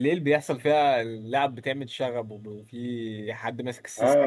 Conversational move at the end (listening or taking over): taking over